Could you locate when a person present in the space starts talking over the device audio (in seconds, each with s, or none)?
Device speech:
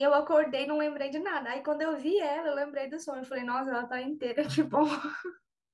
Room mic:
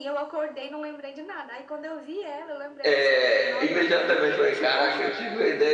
2.8 s